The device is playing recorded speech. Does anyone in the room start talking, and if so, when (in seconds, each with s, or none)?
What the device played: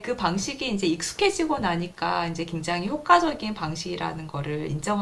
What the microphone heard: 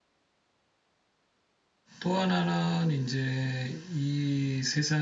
2.0 s